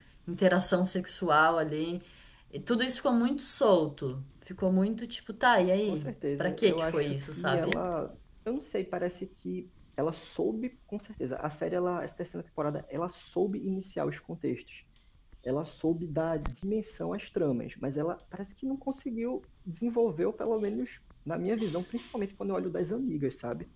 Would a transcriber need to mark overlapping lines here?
Yes, from 5.9 s

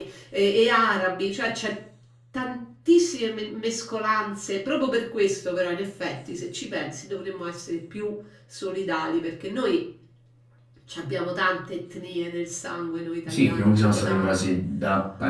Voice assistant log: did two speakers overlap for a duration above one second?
Yes, from 13.2 s

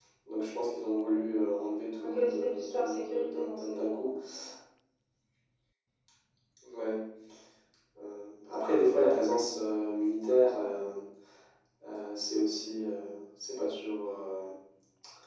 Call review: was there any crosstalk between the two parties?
Yes, from 2.0 s

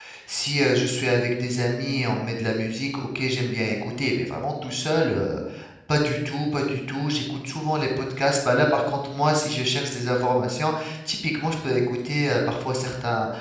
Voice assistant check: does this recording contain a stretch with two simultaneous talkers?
No

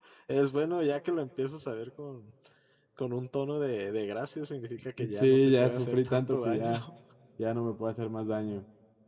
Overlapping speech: Yes, from 5.0 s

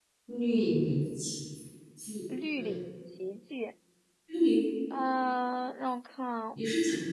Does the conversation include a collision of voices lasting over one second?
No

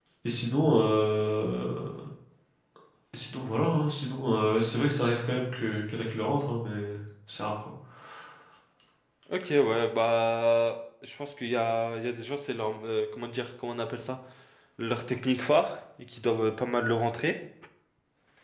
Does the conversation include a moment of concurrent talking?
No

